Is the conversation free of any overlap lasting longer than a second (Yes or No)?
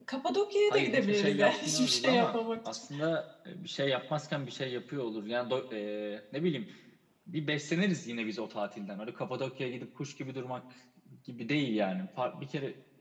No